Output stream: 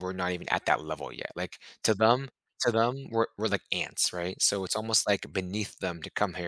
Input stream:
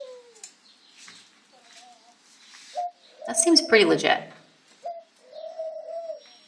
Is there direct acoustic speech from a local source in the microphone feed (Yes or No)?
Yes